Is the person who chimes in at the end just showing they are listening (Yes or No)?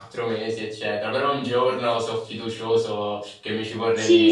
No